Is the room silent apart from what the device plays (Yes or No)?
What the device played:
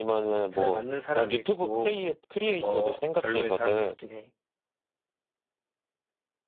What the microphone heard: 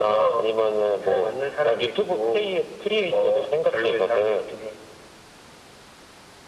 Yes